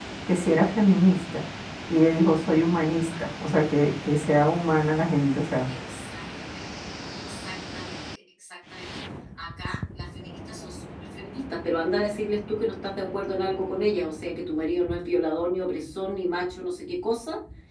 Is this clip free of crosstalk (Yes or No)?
Yes